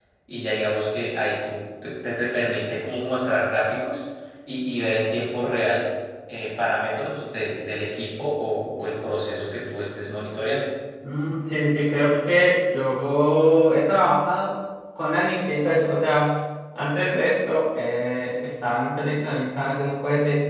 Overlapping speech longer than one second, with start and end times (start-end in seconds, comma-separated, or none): none